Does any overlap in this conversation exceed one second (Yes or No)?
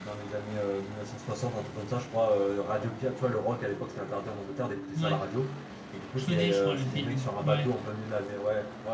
Yes